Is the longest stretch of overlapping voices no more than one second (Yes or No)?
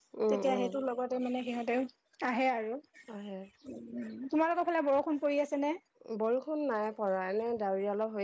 Yes